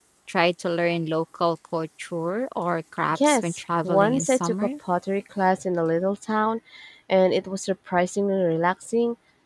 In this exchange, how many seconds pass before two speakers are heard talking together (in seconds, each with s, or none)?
3.1 s